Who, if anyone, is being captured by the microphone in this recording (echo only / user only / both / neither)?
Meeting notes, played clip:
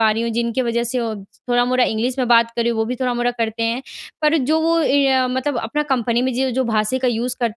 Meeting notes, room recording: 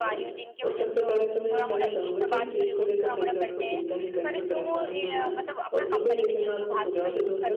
both